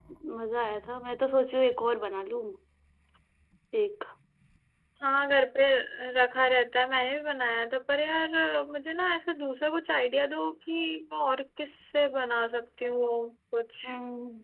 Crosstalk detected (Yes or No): No